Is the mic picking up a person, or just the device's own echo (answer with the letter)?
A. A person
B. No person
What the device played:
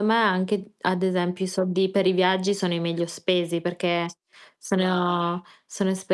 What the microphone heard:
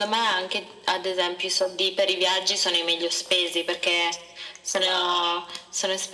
B